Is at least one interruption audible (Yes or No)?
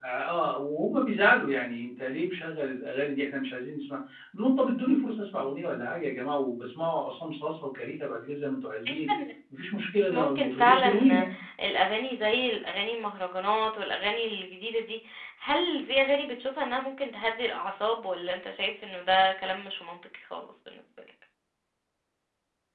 Yes